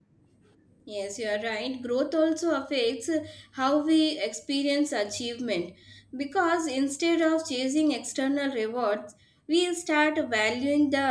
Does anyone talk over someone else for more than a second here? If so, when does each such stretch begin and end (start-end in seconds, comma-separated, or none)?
none